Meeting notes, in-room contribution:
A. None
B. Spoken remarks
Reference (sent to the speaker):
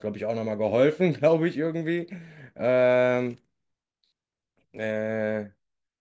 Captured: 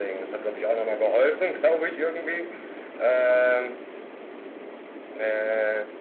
A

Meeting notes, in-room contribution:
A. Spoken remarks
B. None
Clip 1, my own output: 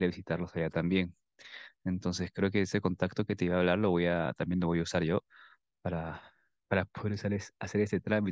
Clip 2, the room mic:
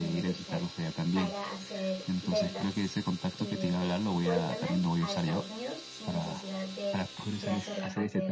A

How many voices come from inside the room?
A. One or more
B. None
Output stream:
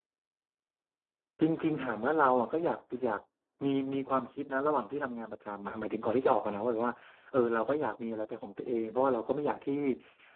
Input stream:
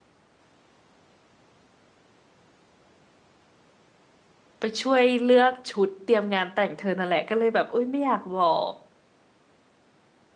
A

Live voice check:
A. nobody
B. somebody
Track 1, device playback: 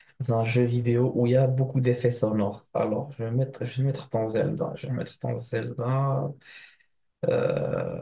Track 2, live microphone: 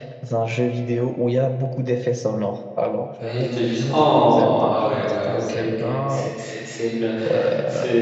B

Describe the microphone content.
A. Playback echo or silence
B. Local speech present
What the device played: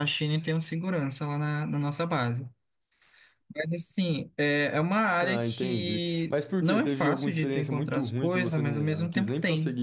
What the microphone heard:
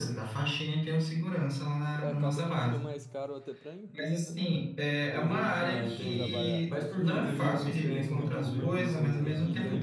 B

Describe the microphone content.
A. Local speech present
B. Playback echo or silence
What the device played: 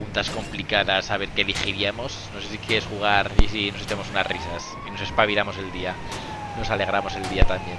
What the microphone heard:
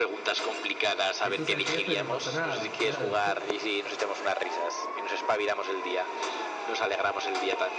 A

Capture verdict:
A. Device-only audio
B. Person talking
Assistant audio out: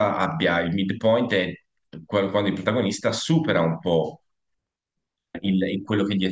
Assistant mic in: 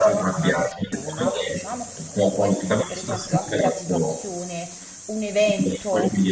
B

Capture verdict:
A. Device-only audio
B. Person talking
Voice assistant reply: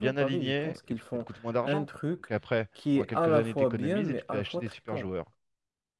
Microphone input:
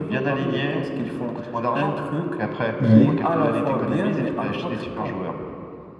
B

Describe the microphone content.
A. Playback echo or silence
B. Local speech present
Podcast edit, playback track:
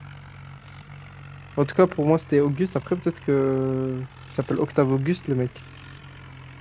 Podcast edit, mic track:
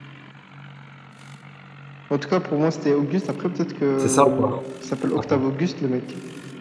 B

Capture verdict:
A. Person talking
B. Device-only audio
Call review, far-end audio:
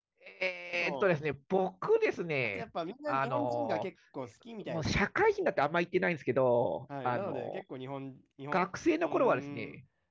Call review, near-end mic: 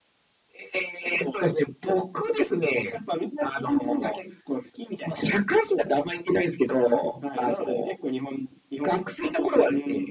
B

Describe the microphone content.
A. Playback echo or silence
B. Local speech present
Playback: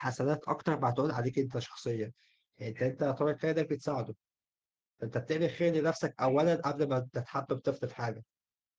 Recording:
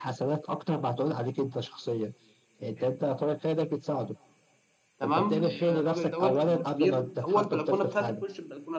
B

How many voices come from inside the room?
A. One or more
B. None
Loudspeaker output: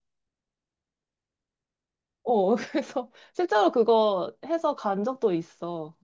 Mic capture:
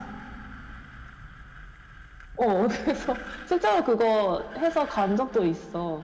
B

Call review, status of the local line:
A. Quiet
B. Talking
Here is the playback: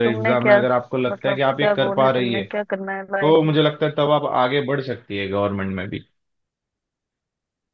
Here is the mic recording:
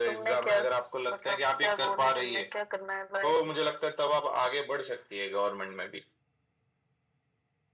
A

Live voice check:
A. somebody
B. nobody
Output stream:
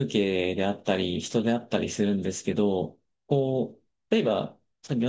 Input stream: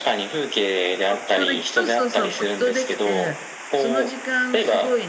A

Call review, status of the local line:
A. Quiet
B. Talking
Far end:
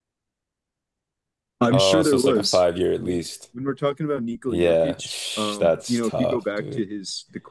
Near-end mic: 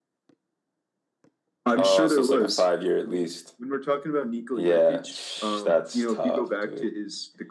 A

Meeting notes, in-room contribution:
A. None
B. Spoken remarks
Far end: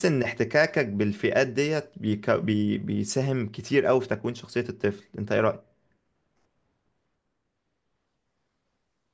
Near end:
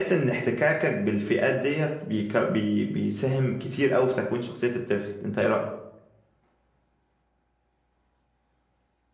A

